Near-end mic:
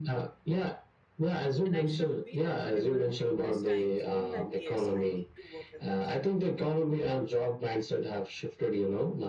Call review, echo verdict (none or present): present